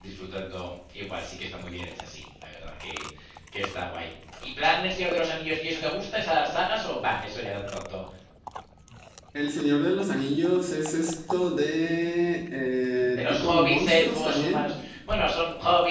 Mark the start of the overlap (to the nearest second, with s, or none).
13 s